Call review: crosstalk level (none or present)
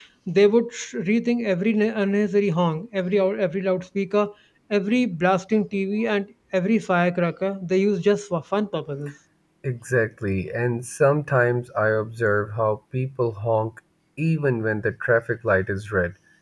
none